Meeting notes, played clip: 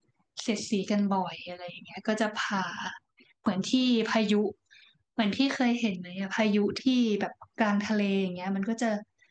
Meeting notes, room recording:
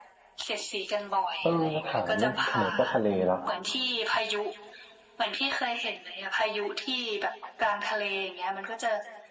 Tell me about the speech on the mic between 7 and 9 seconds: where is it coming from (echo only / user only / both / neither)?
echo only